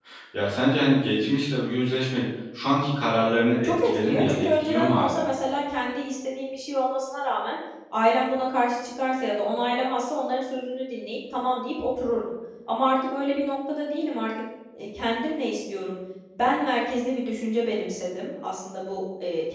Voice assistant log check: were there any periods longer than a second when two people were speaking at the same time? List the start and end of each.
3.6-5.3

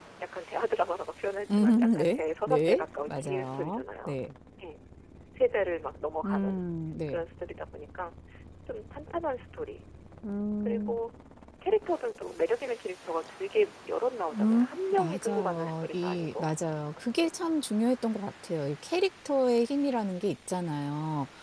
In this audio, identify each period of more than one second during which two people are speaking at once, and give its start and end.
1.5-4.2, 14.3-16.5

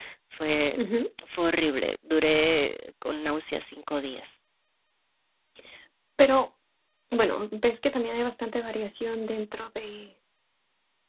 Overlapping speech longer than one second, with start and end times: none

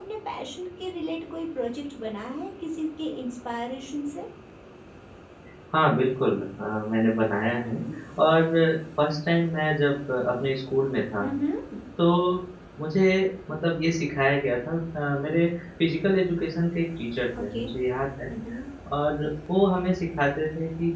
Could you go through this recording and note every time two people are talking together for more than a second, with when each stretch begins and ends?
none

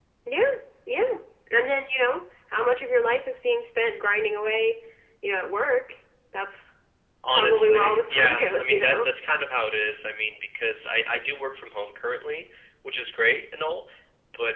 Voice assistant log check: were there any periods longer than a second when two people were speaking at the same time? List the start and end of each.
7.3-9.1

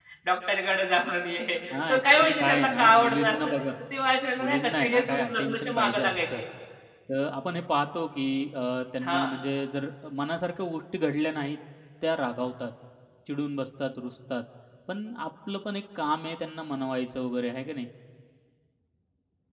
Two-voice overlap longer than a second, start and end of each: 1.7-3.5, 4.4-6.2

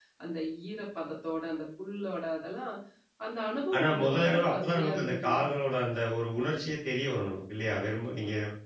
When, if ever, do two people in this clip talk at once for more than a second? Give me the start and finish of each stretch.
3.8-5.4

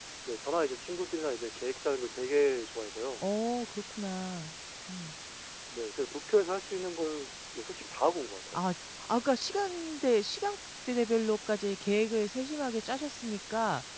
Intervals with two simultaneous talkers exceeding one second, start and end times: none

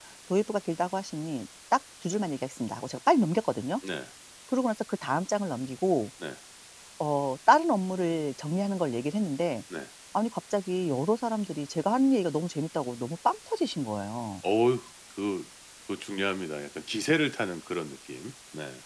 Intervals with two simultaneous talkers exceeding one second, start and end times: none

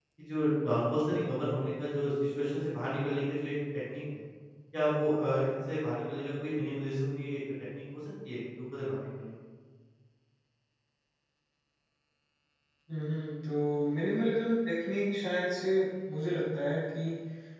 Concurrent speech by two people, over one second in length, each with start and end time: none

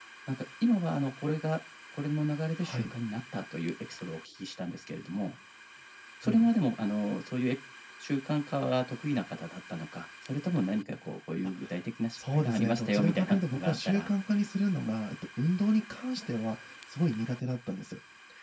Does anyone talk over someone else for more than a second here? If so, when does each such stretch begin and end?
12.2-14.1

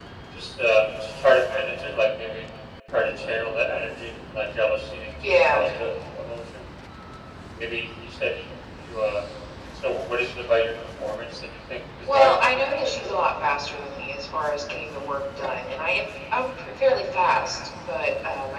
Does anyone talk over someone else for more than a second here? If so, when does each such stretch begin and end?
12.0-13.2

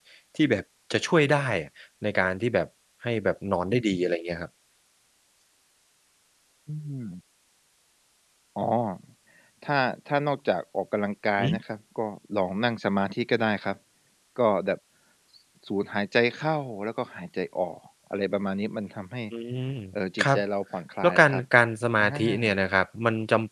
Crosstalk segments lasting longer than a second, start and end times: none

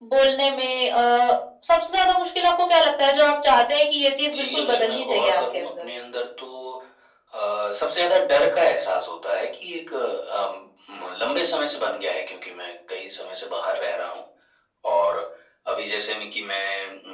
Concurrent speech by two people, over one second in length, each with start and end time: 4.2-5.8

